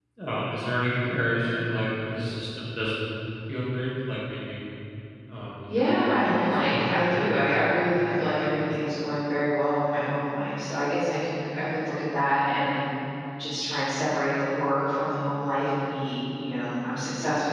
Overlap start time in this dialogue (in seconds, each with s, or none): 5.8 s